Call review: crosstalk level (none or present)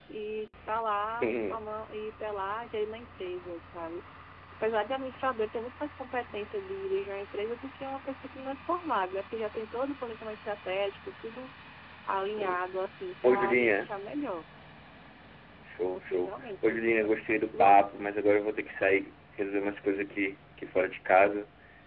present